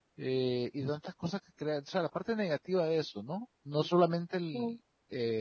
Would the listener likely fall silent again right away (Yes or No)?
Yes